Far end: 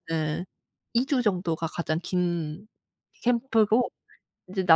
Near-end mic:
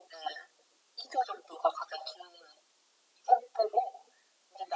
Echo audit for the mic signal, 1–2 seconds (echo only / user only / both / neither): echo only